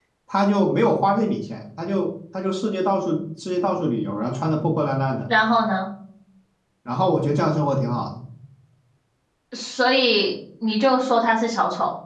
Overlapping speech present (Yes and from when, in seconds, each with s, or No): No